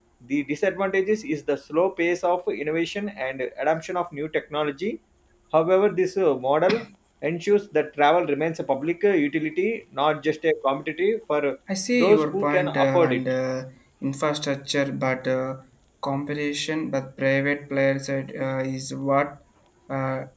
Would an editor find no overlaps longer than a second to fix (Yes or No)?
No